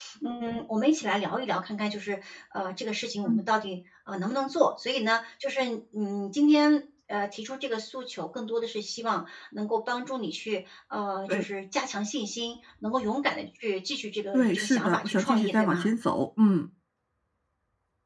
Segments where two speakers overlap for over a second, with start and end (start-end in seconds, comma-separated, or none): 14.3-15.9